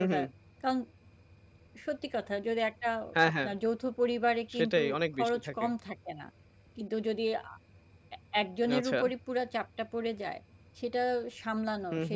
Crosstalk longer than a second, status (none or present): none